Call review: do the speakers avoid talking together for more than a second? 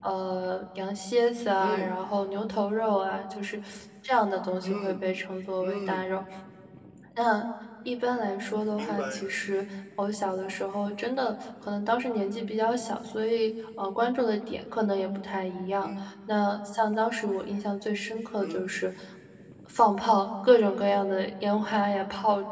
Yes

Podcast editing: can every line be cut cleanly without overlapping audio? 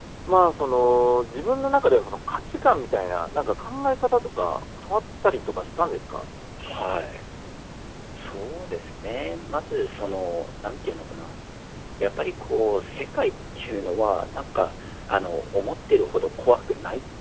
Yes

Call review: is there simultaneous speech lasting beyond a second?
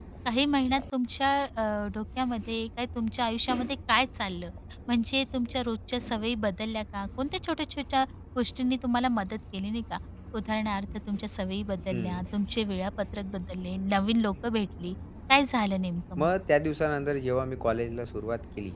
No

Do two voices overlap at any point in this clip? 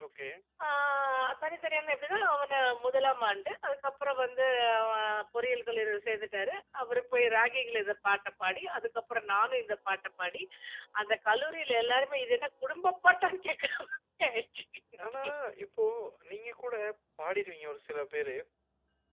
No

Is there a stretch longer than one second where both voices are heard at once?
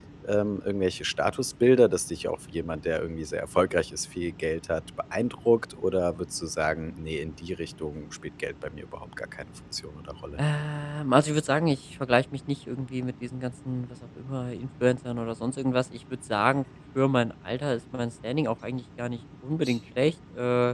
No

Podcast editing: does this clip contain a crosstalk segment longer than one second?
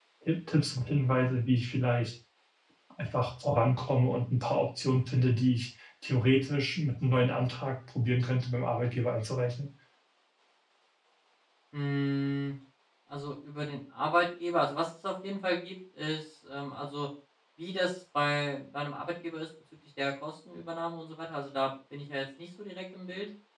No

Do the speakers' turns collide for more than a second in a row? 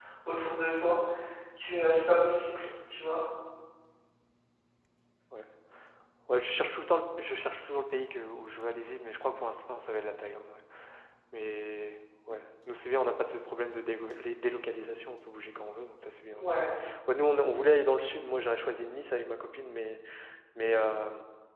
No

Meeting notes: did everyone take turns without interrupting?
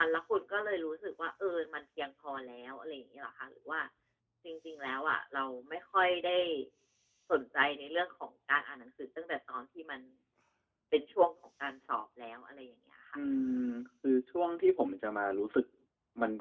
Yes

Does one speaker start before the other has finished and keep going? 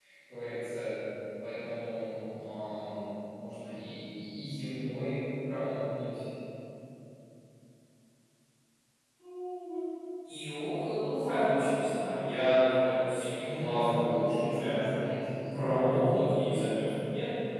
Yes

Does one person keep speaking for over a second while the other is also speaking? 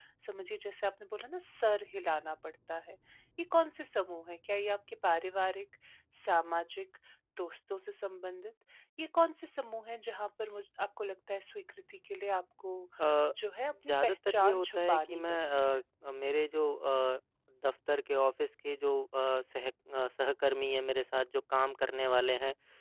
Yes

